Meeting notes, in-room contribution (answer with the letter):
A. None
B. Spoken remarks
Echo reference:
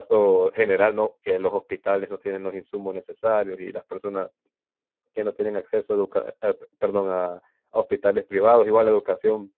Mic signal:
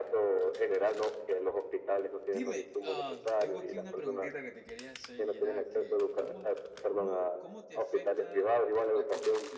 B